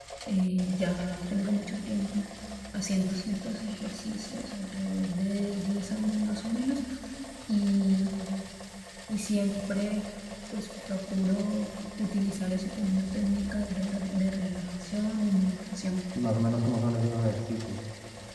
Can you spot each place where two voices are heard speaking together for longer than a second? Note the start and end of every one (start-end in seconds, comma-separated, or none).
none